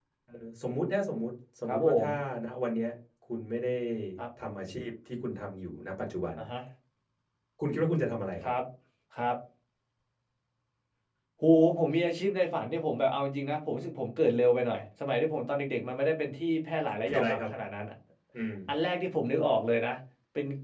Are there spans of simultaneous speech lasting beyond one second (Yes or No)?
No